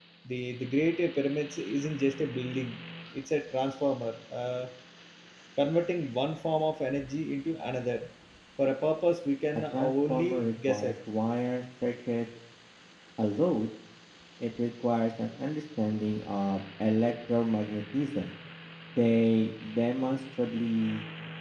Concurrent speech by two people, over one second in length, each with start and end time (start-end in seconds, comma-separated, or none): 9.7-10.9